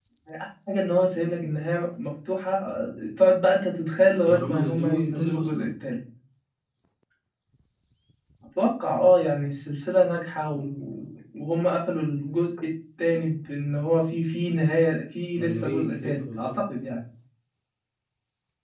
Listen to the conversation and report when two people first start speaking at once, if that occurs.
4.3 s

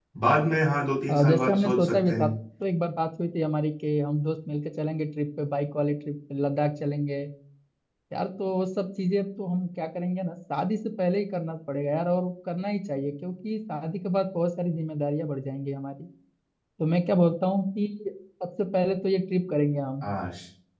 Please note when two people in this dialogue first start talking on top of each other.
1.1 s

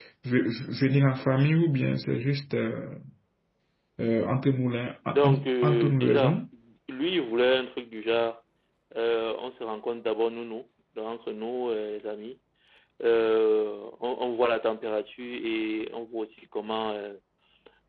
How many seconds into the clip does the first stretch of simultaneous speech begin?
5.0 s

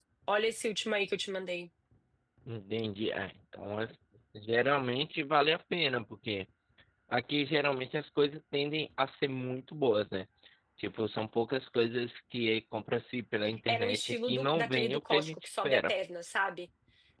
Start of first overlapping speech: 13.4 s

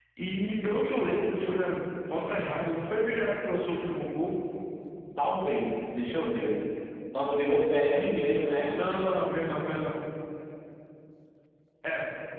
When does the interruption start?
none

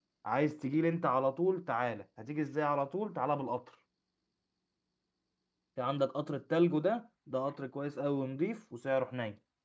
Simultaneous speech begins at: none

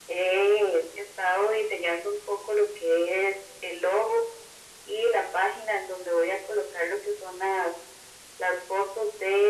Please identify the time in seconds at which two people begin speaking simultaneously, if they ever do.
none

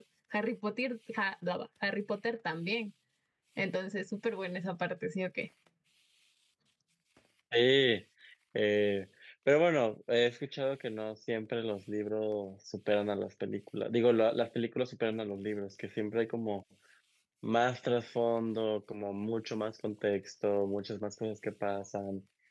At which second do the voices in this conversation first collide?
none

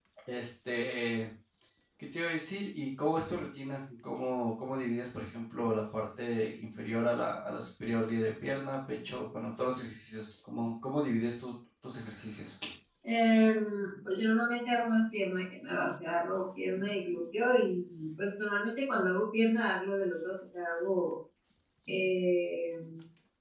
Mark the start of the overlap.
none

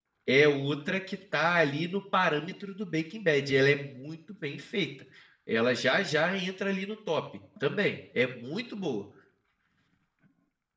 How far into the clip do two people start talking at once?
none

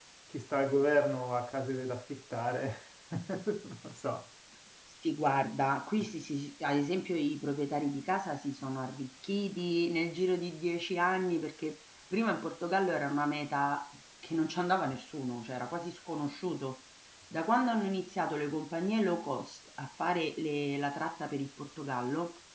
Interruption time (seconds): none

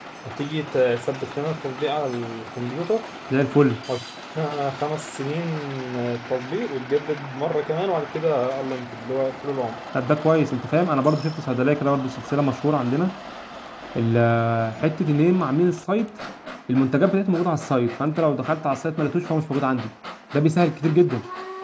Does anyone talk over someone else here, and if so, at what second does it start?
none

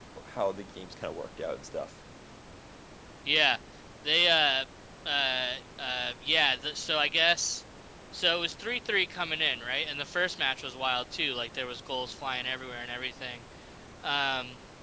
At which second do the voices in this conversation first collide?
none

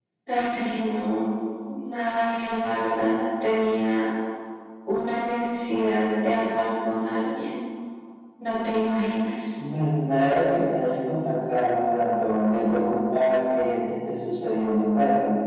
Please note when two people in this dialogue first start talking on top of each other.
none

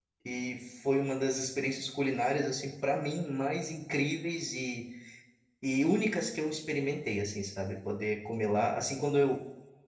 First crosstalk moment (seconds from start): none

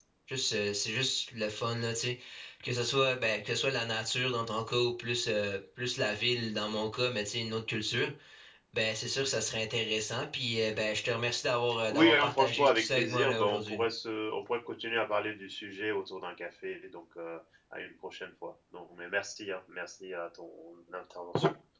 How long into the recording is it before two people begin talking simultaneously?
11.9 s

